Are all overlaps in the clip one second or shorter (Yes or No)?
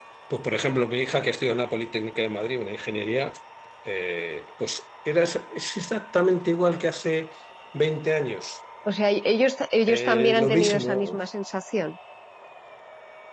No